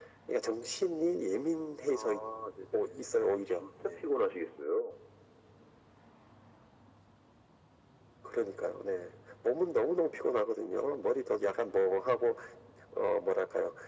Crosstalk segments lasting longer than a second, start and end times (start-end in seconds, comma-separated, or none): 2.7-4.0